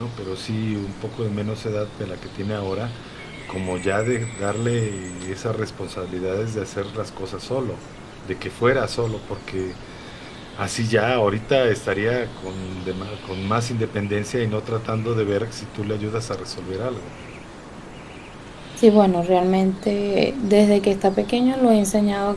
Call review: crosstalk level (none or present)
none